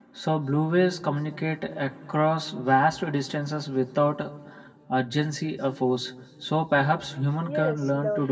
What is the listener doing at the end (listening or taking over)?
taking over